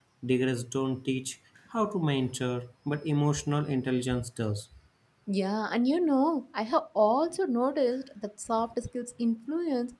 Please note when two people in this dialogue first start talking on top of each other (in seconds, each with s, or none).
none